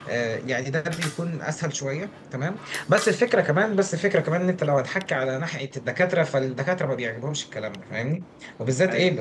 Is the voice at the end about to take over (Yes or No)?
No